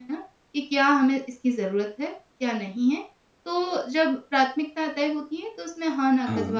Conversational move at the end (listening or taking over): listening